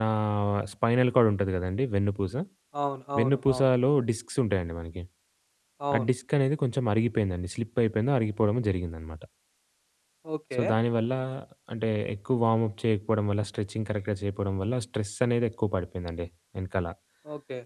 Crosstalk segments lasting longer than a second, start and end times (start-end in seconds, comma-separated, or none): none